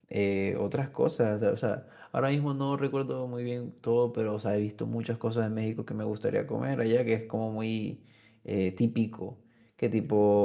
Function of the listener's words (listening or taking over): listening